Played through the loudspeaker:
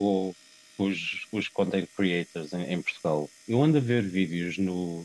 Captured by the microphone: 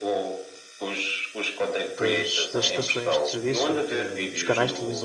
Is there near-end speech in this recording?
Yes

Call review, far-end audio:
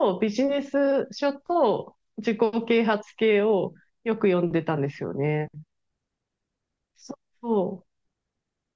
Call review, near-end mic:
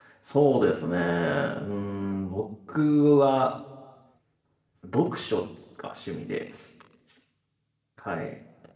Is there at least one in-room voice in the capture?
Yes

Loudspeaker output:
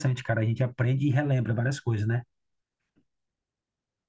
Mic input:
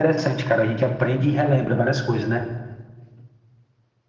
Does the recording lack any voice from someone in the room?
Yes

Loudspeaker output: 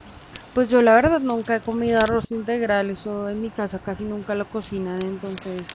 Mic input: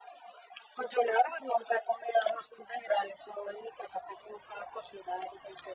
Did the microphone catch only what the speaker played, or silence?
Yes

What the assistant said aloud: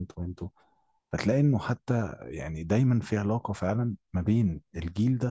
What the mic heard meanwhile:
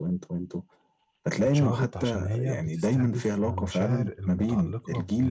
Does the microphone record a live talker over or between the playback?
Yes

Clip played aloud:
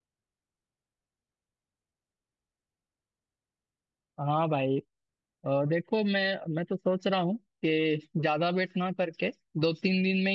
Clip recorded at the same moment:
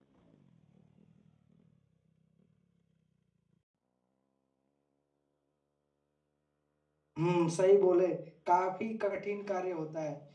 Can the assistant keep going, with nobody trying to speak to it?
No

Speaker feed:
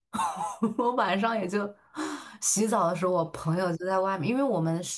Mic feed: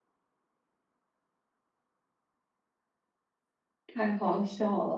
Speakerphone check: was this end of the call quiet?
No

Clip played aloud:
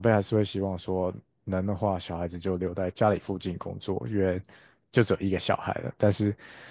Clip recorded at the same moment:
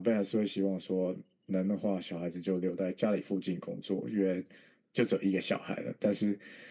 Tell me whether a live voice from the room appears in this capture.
No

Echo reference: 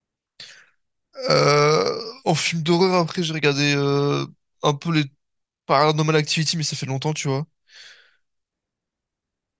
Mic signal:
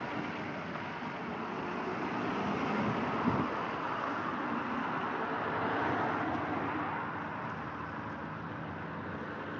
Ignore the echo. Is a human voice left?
No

